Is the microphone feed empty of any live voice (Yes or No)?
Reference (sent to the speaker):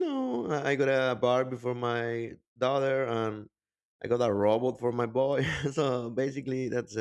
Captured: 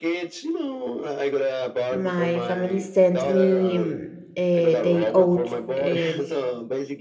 No